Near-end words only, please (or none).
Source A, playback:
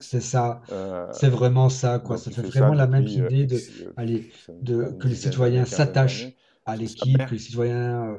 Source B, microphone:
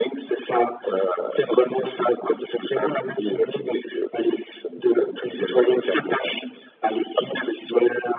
none